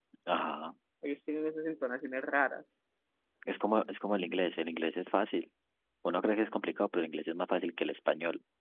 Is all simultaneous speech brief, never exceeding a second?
Yes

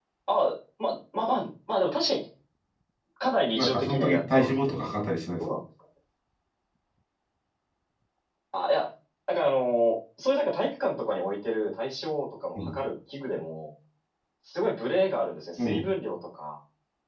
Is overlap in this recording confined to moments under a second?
No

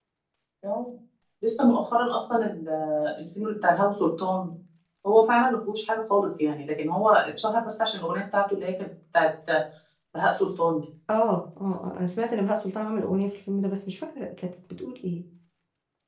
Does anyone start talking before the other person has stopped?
No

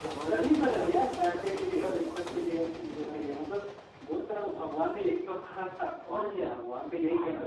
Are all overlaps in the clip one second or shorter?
No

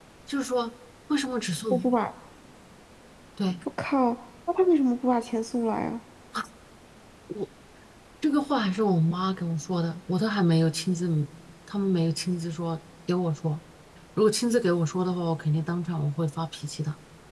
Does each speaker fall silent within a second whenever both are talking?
Yes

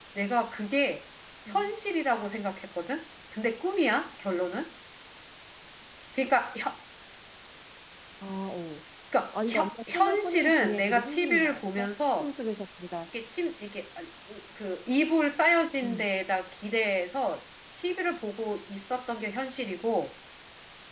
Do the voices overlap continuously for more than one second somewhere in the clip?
Yes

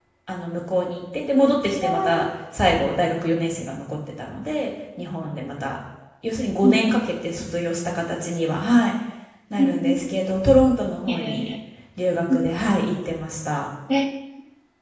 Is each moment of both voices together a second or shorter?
Yes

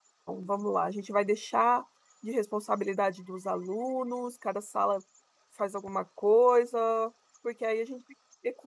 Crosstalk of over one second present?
No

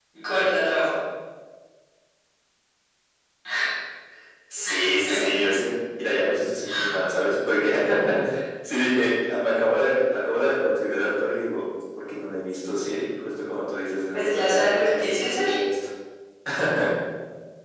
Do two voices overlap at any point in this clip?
Yes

